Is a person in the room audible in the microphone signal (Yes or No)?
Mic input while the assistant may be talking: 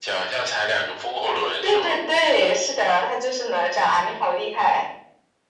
No